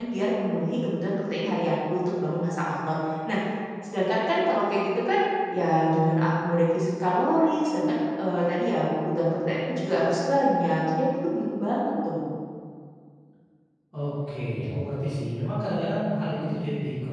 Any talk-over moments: No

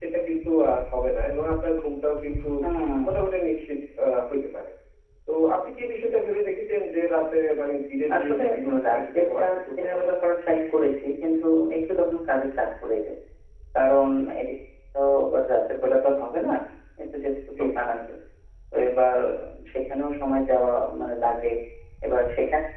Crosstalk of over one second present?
Yes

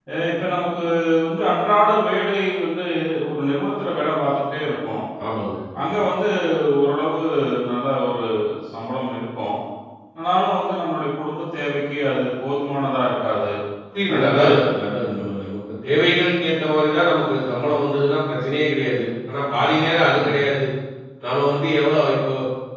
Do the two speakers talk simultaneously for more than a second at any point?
No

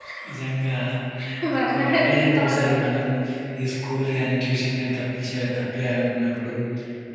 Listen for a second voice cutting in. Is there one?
Yes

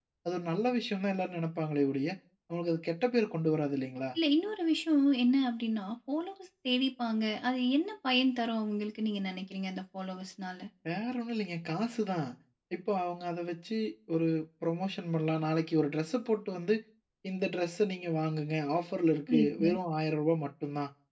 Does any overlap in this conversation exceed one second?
No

